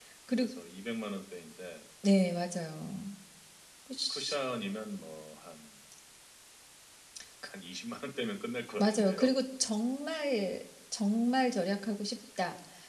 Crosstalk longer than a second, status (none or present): none